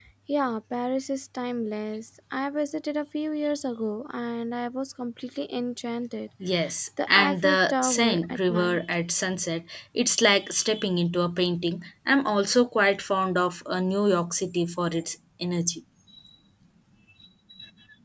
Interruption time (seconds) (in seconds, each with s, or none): 7.1 s